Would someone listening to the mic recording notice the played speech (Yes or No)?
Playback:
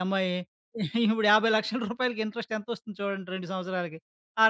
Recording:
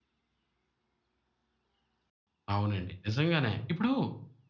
No